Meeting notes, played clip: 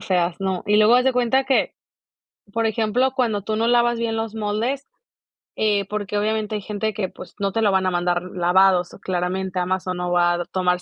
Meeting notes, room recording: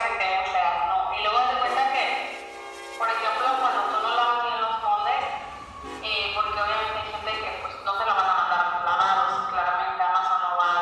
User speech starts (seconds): none

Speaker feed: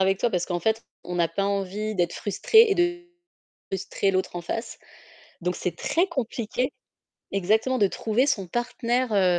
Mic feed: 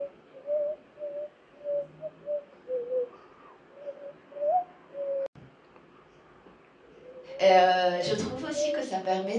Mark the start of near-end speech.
7 s

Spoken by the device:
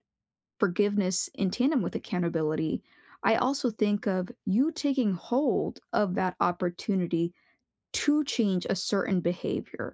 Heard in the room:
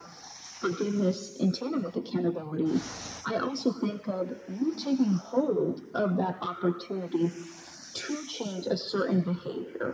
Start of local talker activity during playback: none

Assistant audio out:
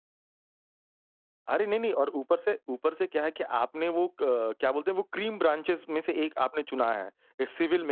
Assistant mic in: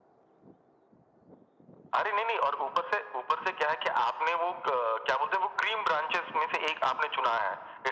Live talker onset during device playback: none

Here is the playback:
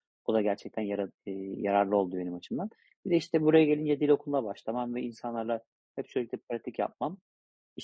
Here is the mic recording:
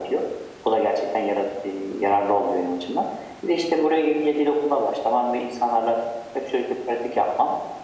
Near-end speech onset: none

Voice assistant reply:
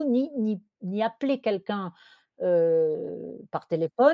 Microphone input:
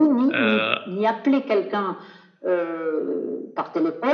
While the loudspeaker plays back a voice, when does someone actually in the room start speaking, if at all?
0 s

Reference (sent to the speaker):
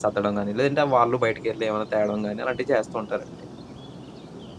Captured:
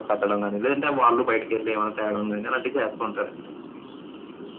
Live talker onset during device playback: none

